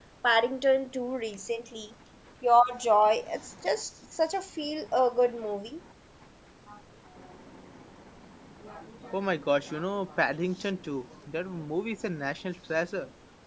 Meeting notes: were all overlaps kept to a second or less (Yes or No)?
Yes